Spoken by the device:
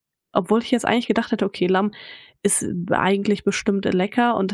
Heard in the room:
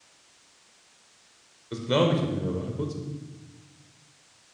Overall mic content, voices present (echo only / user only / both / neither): user only